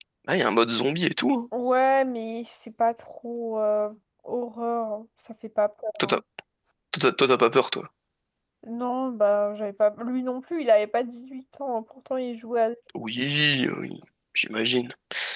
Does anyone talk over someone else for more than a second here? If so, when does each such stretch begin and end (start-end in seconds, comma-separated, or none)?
none